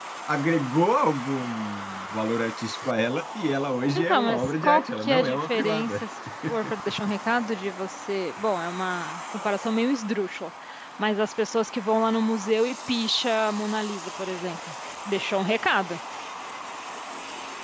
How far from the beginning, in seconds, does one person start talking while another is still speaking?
4.0 s

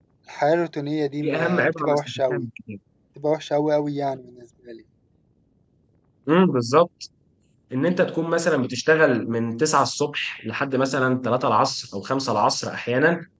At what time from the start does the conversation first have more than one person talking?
1.2 s

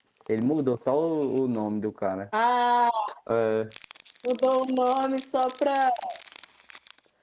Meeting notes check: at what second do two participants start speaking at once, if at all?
none

